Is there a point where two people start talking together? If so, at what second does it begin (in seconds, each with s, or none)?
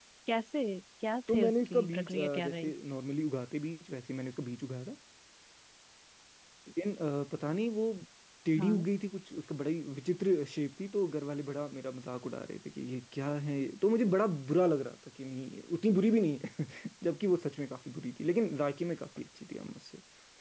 1.3 s